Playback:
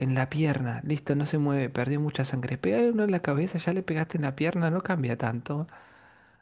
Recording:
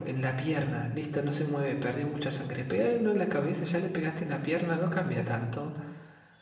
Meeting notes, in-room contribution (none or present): none